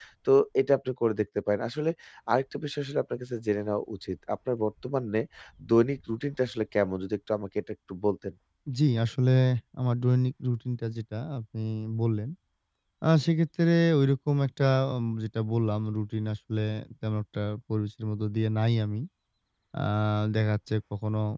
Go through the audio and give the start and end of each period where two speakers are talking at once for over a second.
none

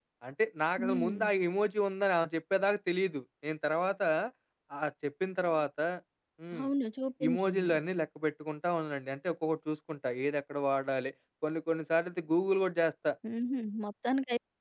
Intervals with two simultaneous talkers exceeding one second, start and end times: none

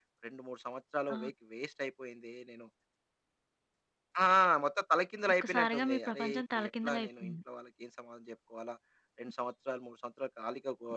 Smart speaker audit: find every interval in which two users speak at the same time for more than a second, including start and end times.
5.4-7.4

